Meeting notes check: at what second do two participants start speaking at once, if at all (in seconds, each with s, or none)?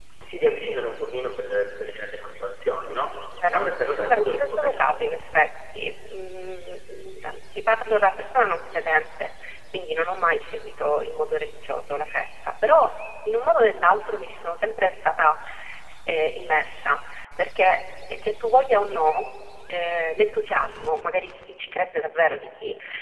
3.4 s